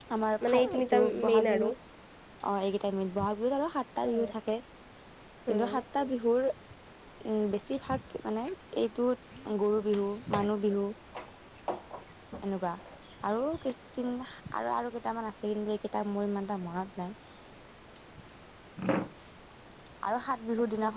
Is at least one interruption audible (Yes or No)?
Yes